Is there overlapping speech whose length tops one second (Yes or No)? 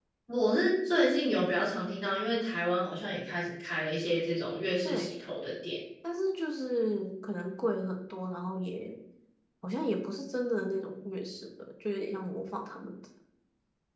No